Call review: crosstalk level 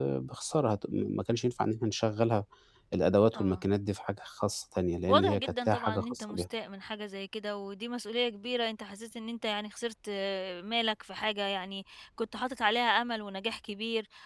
present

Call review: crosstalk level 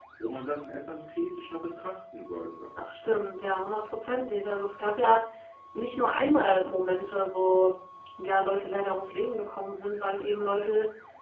none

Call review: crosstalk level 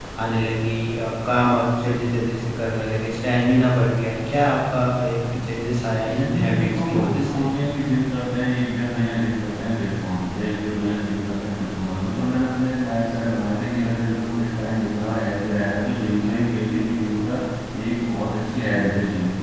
present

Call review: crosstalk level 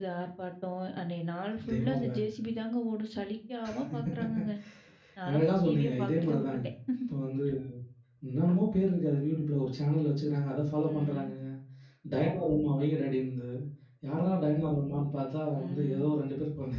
present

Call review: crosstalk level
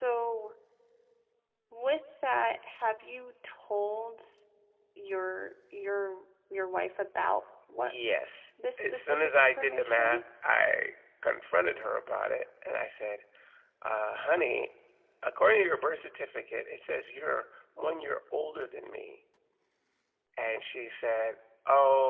present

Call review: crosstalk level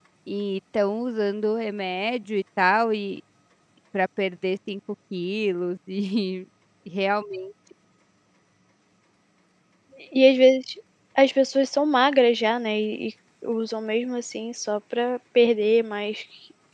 none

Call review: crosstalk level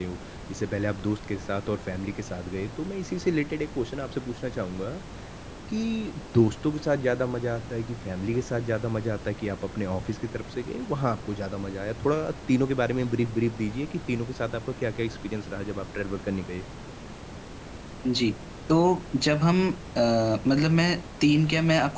none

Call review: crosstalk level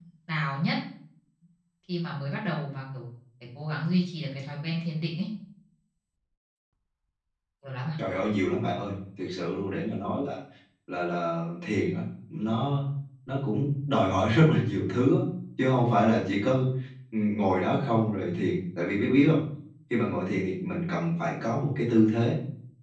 none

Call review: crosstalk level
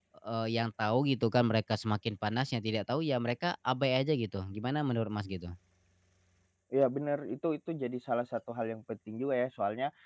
none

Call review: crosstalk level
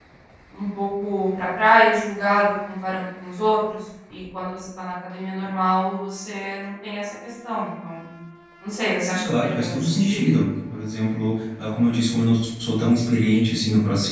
present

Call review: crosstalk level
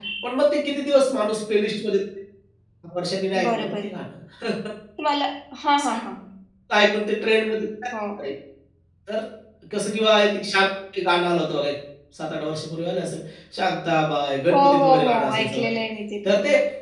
present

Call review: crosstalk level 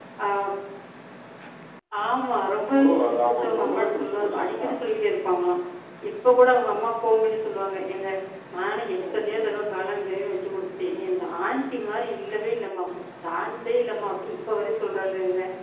present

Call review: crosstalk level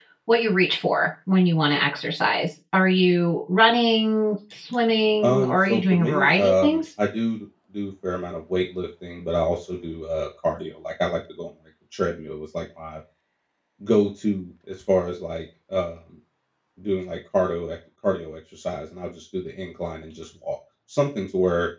present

